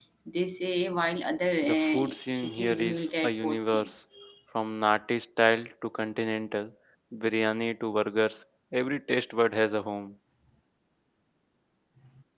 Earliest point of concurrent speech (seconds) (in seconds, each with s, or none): 1.6 s